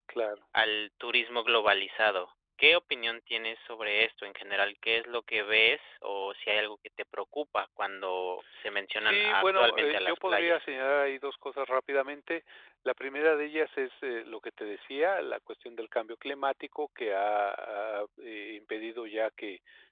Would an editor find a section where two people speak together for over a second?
Yes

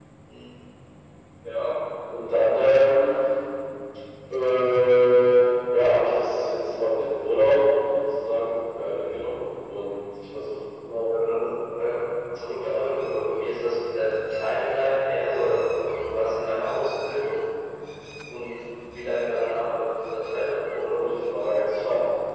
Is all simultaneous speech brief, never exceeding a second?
Yes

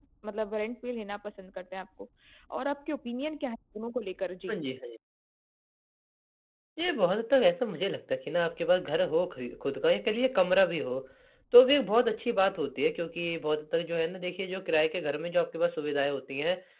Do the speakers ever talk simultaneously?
No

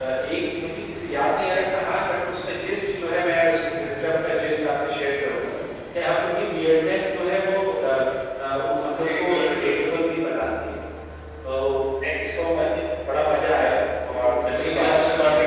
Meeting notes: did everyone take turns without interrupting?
No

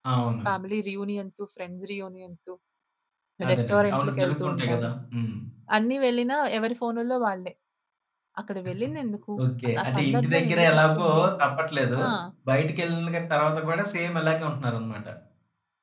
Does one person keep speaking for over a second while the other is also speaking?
Yes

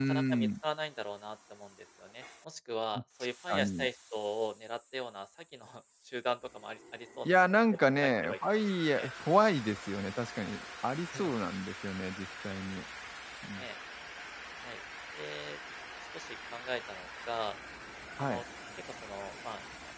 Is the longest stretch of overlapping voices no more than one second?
No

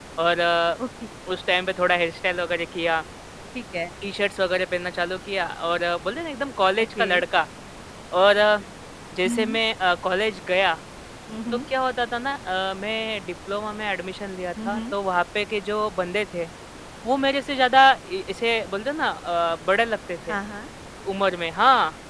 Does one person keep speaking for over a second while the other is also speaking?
No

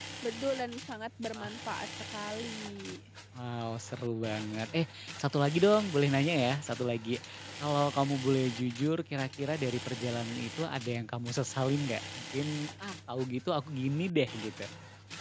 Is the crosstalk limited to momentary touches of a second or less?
Yes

